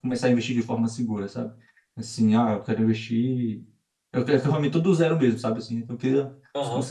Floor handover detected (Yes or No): Yes